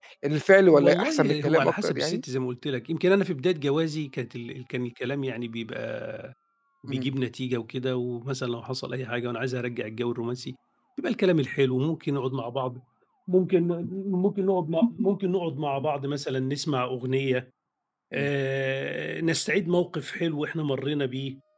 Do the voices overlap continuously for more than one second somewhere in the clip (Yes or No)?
Yes